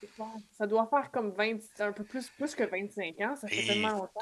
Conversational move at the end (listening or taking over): taking over